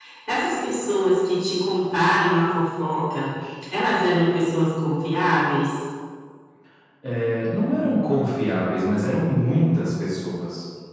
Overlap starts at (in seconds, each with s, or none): none